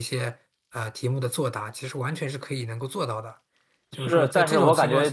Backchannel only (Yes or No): No